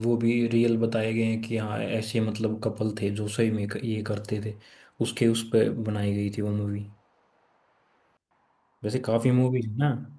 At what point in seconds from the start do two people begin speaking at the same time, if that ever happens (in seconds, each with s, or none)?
none